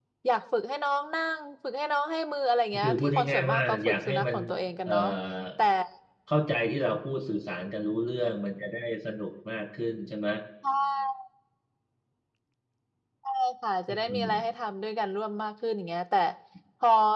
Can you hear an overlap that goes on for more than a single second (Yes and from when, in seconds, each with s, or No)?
Yes, from 2.8 s